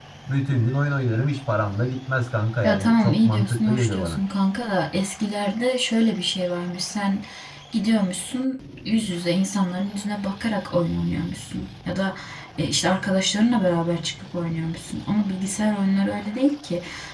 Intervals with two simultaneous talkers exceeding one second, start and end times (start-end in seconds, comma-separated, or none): 2.6-4.2